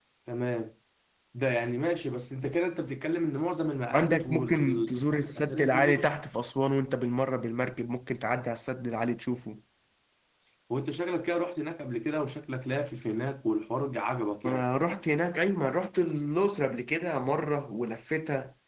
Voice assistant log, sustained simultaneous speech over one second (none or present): present